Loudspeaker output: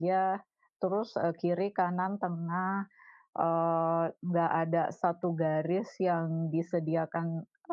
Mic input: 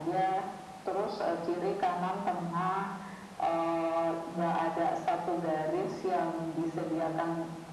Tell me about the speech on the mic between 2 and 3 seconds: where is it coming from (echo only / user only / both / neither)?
echo only